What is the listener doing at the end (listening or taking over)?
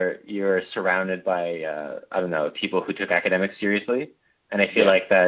listening